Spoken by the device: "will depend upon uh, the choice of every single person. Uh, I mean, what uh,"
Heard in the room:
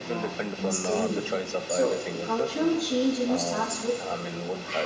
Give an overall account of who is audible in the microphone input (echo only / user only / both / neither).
both